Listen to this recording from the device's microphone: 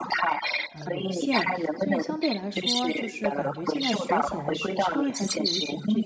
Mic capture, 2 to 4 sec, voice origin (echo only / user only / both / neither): both